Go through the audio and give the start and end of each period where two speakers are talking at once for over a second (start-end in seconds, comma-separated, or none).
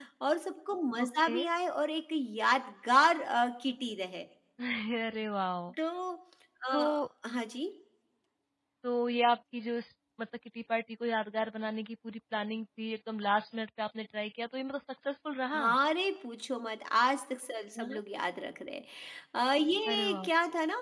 none